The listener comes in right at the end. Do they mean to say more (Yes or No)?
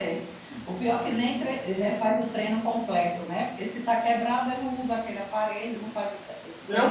Yes